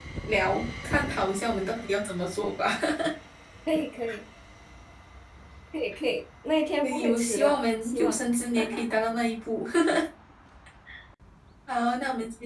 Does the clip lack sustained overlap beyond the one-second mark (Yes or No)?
No